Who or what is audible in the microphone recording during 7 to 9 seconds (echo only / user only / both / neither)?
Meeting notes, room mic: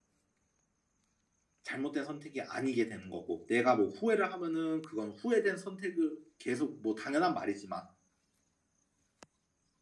user only